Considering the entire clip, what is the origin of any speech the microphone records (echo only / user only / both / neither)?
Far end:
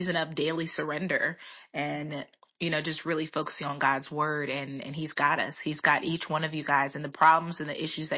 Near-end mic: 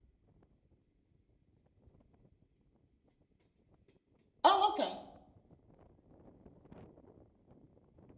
user only